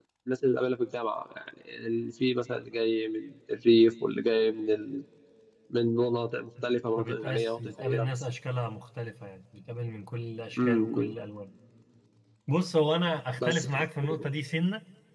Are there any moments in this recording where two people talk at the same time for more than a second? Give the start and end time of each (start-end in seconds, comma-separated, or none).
6.6-8.2